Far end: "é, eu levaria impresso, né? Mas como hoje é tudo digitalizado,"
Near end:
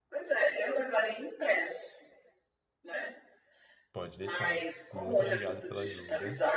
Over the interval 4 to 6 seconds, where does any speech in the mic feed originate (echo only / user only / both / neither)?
both